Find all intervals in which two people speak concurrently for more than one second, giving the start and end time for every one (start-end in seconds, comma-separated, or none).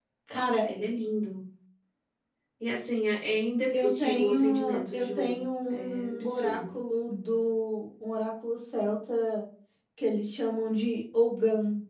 3.7-6.7